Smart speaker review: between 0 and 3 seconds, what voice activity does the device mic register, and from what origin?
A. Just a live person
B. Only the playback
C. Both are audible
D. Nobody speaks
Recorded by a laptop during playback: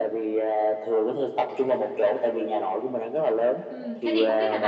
B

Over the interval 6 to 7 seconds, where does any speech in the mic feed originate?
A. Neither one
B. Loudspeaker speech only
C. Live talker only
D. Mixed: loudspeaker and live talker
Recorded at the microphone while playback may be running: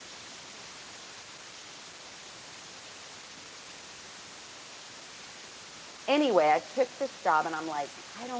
C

